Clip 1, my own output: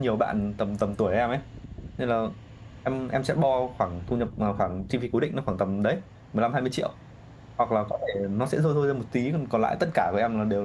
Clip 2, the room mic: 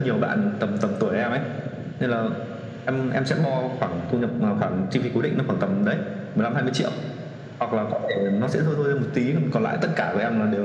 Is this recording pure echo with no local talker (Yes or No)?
Yes